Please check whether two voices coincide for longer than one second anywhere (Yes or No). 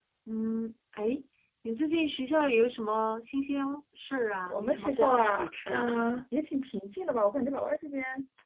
Yes